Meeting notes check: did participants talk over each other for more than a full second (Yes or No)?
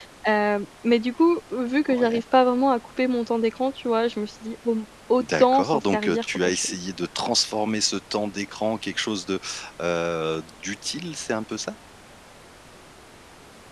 Yes